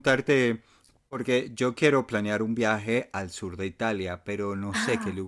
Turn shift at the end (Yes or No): No